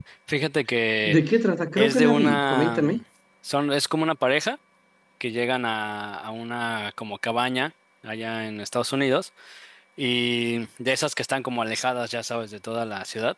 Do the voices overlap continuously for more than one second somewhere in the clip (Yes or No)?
Yes